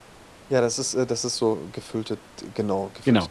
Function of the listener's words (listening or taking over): taking over